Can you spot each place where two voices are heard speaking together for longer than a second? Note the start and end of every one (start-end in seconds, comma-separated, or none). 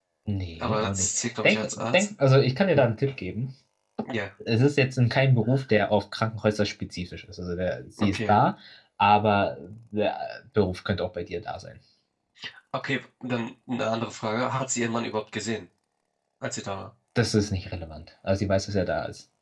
0.6-2.1